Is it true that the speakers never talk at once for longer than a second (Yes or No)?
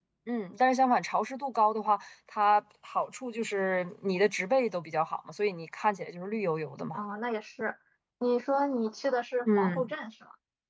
Yes